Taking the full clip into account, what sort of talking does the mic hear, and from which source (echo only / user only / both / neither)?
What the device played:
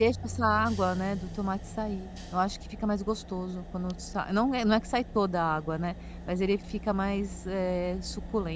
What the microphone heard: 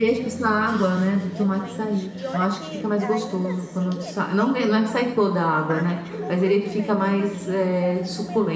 both